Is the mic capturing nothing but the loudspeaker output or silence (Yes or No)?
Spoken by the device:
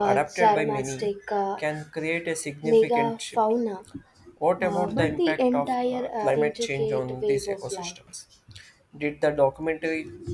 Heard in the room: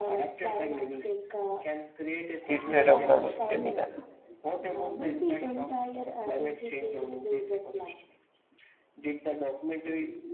No